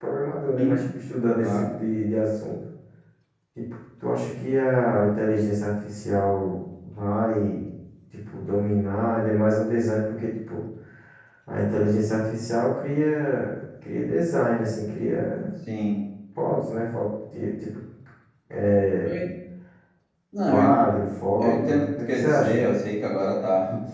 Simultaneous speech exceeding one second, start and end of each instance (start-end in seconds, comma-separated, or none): 21.4-22.8